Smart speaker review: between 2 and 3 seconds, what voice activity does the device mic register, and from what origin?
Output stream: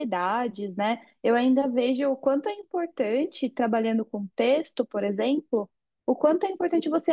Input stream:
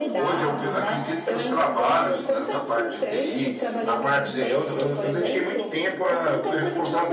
both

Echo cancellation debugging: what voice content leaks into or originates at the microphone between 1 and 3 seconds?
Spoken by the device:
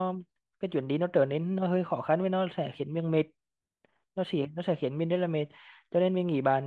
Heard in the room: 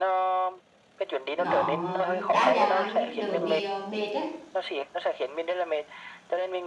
both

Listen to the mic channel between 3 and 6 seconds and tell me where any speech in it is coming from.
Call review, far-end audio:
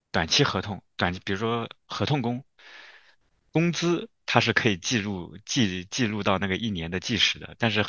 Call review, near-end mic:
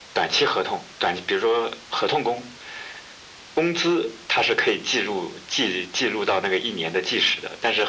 echo only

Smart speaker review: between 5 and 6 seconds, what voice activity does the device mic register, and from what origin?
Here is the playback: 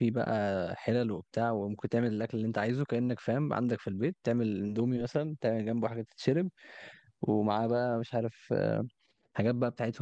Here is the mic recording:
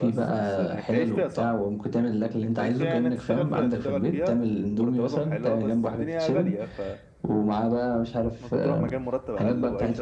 both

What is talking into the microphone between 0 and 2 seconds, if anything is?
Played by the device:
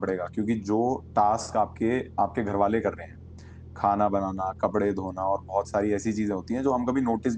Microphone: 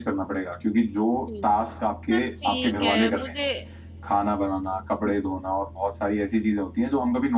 both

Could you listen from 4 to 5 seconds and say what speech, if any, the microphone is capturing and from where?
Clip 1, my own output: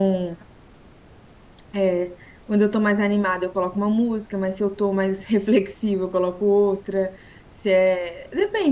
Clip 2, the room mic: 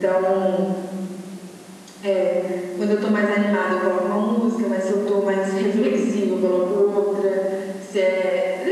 echo only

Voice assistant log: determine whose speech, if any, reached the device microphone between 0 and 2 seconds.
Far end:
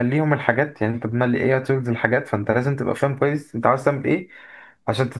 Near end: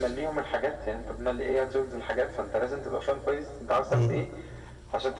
echo only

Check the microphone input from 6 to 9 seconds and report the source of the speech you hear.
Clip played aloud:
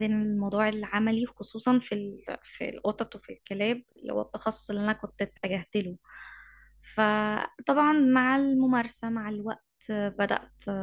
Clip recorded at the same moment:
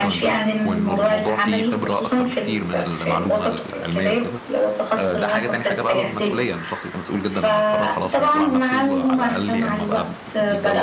both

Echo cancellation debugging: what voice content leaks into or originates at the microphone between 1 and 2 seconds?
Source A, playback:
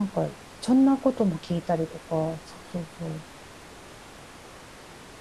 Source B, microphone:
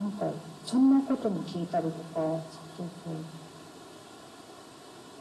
echo only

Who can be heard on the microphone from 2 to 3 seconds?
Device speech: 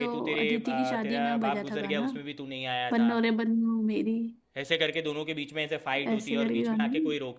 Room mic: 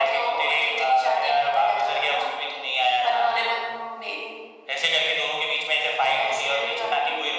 echo only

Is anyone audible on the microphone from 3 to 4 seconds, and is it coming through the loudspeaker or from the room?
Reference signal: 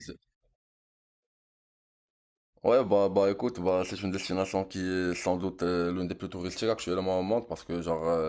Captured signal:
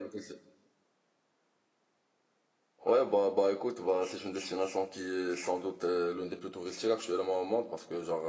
echo only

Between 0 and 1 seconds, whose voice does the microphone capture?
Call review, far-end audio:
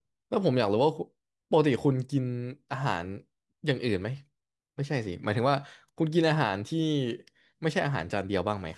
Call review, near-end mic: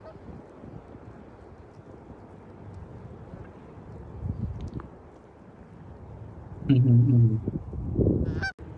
neither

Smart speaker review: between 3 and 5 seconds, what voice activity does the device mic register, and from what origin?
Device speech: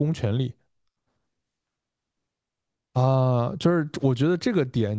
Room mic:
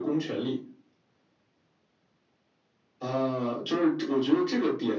echo only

